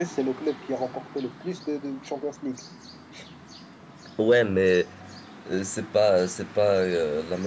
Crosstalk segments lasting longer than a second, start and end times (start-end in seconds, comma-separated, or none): none